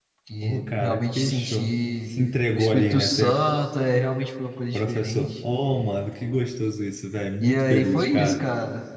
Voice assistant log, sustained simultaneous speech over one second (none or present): present